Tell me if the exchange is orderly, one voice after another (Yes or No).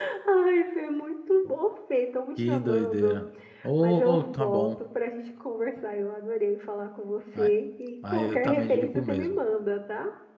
No